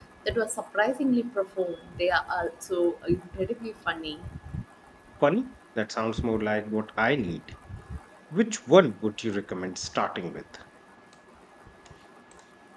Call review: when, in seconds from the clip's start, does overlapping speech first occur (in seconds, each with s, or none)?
none